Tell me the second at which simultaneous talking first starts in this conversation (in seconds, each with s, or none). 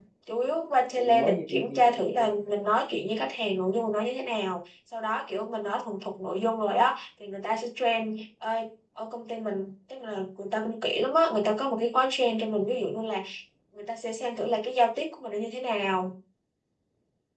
0.9 s